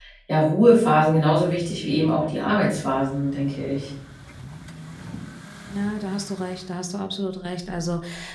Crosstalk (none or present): none